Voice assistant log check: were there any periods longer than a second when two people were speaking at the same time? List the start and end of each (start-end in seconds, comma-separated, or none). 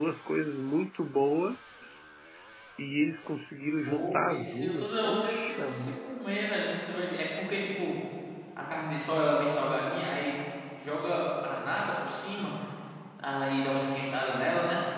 3.8-5.9